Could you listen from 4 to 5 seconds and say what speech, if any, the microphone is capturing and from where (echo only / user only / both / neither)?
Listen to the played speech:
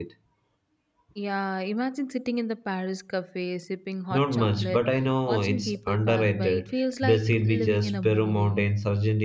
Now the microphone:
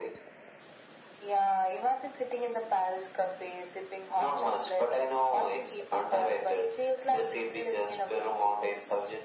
echo only